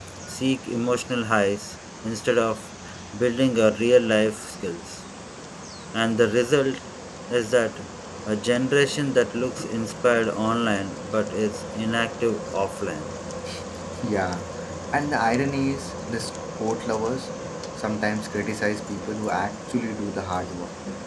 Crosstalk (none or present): none